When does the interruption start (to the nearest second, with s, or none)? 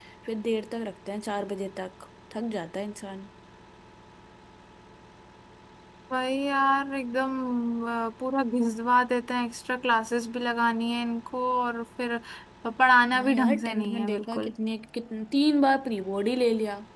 13 s